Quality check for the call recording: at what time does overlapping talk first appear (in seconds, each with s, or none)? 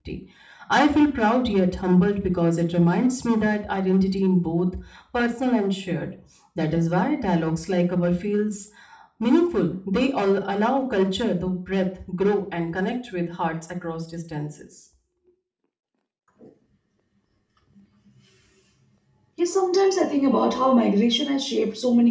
none